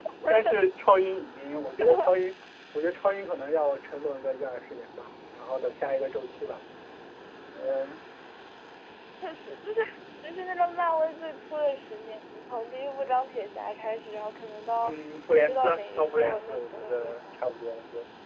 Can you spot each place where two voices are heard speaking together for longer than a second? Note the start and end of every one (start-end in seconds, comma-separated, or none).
15.4-17.1